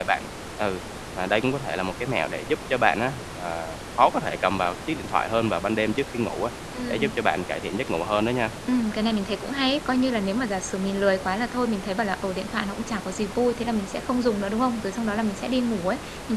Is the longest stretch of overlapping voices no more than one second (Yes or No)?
Yes